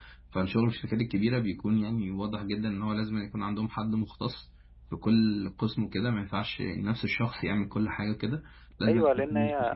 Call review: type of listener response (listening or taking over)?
taking over